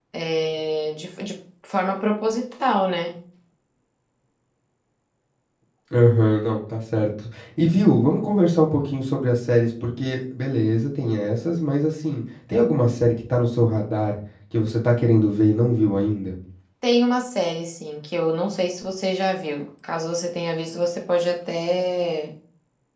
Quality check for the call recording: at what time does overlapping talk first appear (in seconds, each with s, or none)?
none